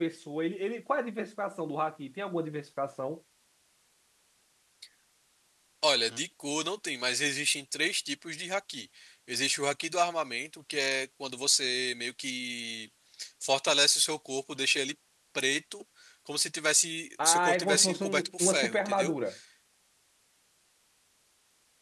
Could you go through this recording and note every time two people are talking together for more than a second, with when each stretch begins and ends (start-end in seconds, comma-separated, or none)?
17.2-19.1